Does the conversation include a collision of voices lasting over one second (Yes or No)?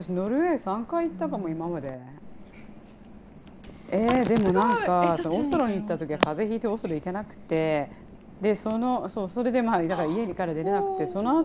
Yes